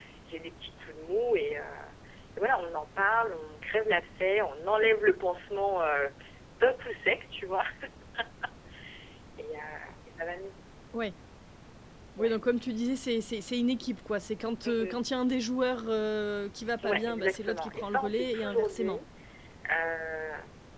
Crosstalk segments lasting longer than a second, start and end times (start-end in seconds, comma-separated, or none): 16.8-19.0